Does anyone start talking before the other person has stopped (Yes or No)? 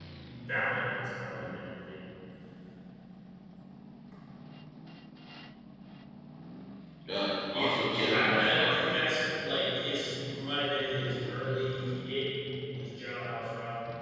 Yes